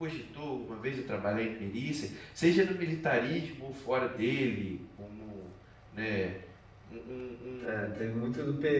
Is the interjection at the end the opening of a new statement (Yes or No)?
Yes